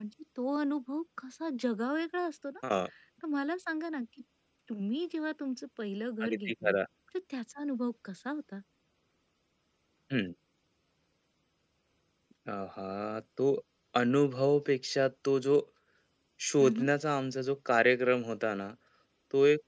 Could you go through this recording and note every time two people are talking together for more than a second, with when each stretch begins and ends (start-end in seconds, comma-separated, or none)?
none